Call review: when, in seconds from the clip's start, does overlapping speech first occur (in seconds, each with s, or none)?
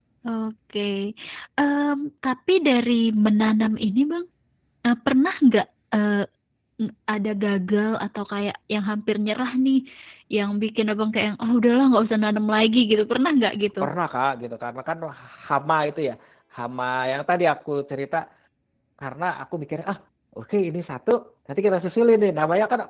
none